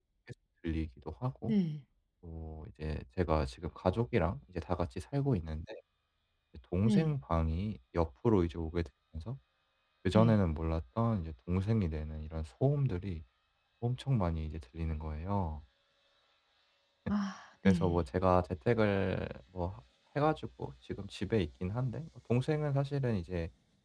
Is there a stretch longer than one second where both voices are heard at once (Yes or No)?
No